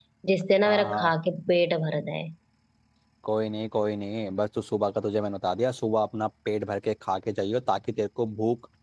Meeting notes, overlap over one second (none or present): none